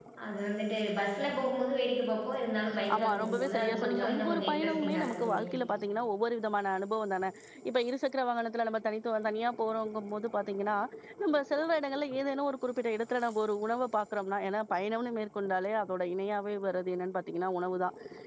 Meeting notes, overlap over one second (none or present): present